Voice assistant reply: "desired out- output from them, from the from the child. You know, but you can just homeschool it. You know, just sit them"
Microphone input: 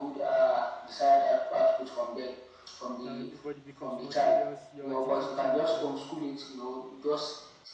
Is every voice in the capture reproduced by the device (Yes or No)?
No